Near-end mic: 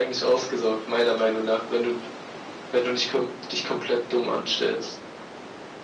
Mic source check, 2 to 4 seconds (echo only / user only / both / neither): echo only